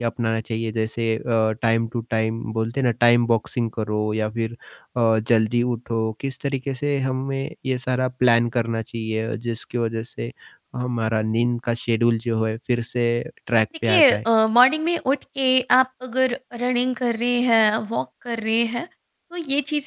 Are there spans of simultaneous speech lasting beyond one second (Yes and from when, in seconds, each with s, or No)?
No